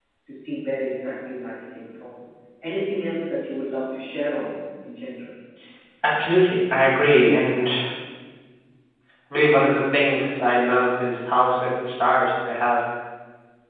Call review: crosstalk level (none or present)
none